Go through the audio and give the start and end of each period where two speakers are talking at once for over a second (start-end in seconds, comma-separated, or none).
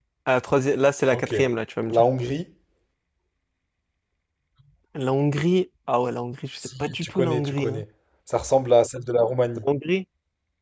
6.6-7.8